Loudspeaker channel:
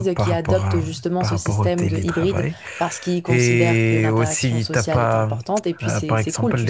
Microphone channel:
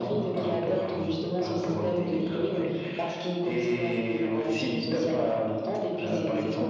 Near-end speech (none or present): none